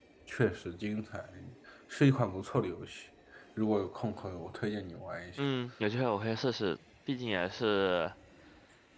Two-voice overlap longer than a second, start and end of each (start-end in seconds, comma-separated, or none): none